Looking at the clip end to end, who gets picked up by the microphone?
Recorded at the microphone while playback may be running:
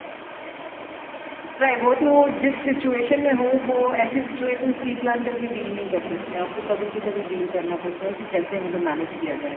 echo only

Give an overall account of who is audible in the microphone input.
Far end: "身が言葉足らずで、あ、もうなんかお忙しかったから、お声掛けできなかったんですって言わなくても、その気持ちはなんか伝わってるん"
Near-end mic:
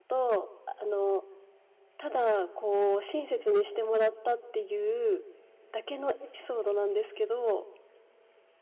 user only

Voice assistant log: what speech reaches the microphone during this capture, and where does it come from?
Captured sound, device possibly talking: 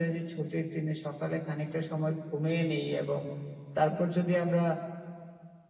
echo only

